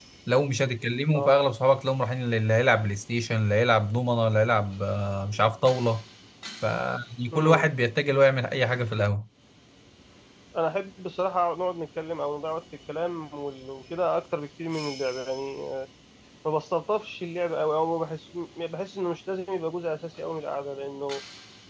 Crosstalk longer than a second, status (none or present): none